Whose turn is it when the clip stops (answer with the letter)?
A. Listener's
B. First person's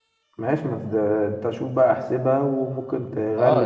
A